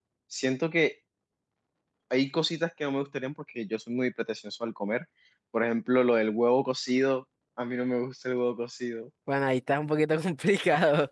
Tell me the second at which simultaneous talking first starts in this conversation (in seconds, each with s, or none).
none